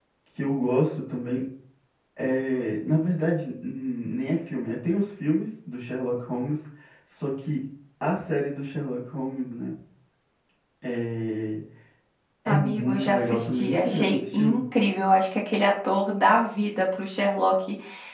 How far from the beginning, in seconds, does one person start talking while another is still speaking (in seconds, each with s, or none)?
12.5 s